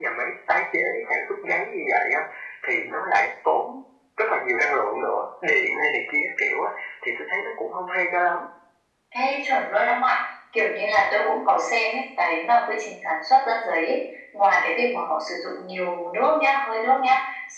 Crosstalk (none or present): none